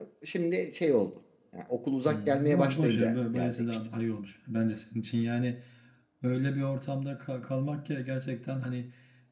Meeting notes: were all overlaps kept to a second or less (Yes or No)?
No